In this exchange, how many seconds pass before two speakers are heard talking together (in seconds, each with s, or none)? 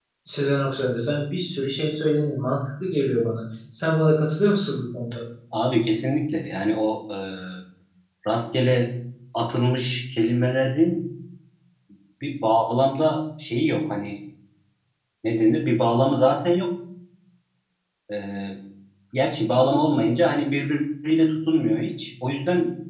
none